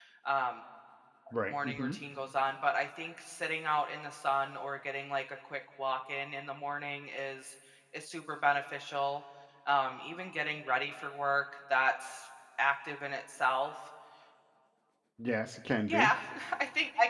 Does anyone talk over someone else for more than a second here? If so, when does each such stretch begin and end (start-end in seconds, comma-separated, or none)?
none